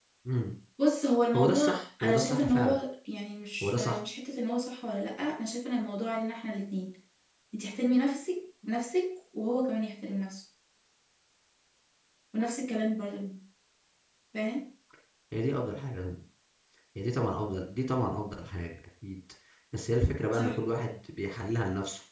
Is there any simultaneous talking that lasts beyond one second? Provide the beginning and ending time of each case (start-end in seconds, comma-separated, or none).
1.4-2.8